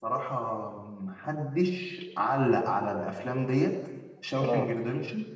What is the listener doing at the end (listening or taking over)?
listening